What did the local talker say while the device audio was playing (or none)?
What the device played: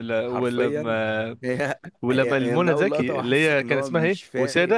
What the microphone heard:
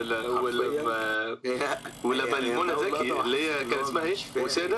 none